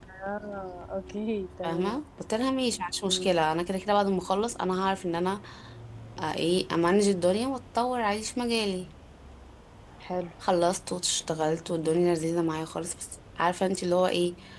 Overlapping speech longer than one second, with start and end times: none

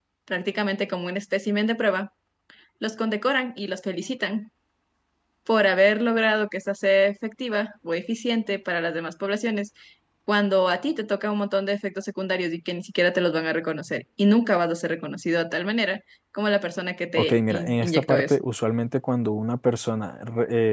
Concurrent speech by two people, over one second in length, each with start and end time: 17.2-18.4

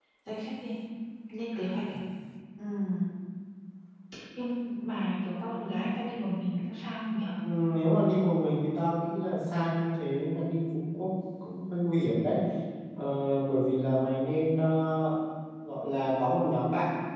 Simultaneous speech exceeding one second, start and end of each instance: none

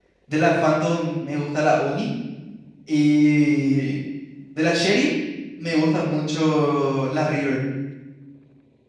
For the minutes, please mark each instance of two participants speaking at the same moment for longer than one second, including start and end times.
none

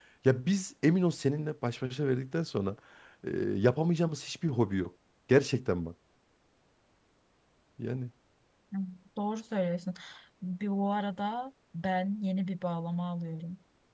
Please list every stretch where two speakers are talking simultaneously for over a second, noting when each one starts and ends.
none

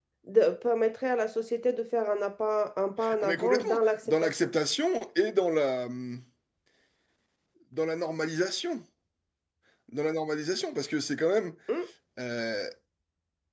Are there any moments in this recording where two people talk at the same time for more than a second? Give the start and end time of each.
3.2-4.5

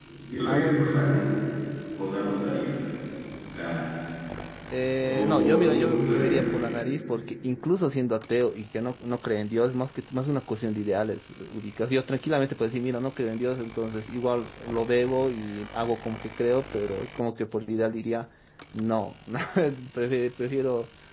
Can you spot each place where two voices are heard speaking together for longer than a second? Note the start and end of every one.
4.9-6.6

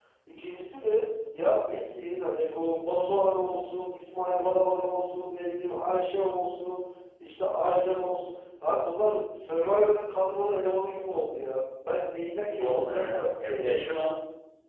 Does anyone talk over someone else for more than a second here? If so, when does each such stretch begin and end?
12.5-13.9

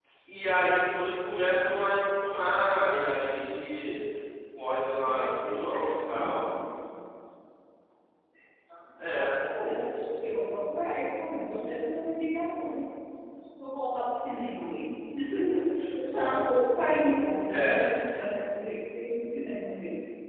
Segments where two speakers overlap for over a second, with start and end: 5.0-6.5

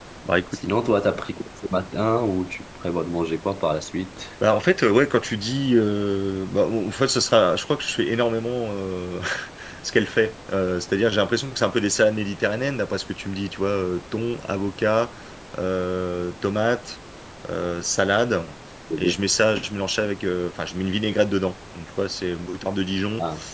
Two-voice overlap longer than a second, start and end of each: none

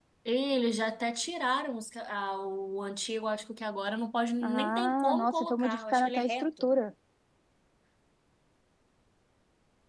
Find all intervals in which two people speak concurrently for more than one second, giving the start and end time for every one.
4.4-6.7

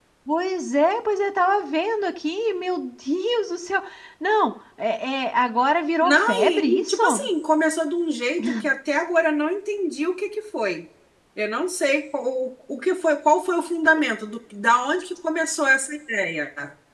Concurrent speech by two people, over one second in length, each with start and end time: 6.0-7.3

